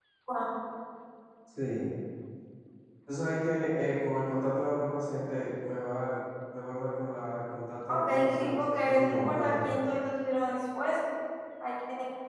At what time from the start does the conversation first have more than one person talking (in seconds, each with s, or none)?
7.9 s